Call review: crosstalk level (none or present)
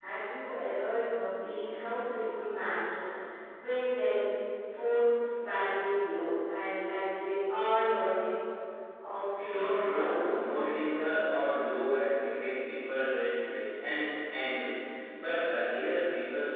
present